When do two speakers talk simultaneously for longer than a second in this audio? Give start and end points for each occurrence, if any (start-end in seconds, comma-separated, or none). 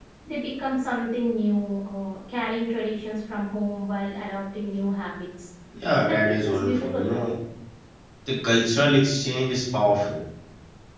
6.0-7.3